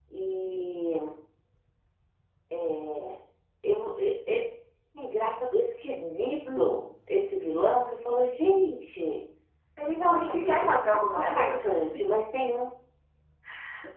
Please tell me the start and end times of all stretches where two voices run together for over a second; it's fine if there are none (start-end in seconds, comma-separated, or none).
10.1-11.7